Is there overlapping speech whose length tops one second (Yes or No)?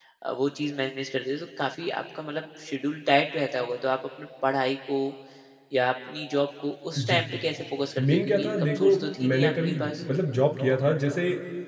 Yes